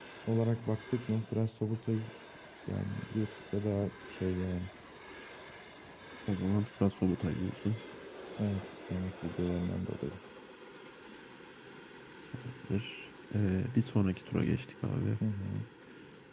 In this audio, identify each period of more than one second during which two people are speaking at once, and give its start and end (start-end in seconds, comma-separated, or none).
none